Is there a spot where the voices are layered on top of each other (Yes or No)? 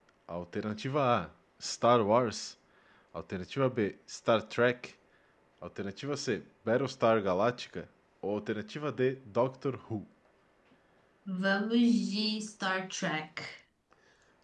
No